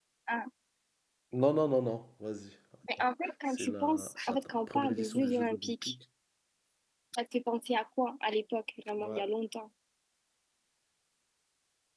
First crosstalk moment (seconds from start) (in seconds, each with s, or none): 3.5 s